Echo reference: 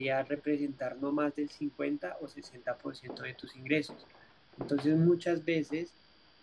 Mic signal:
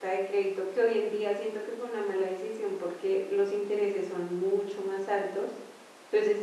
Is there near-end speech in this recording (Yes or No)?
Yes